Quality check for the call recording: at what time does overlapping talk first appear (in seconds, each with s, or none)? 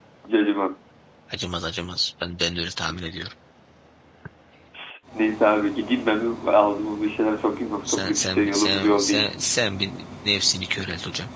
7.8 s